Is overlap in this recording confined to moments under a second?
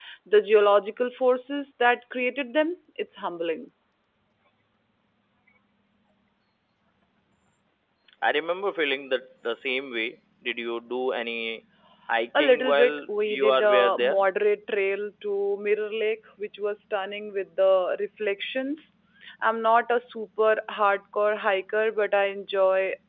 No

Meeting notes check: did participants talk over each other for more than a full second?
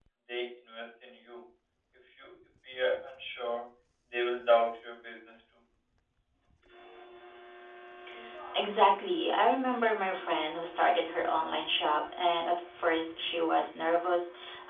No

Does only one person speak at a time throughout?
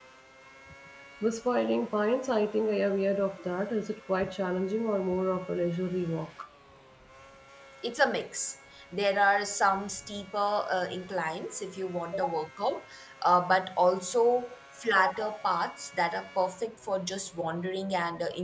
Yes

